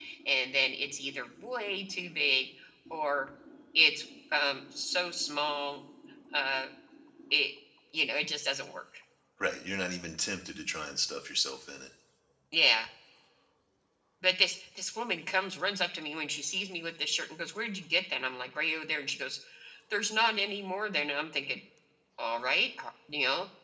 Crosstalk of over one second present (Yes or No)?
No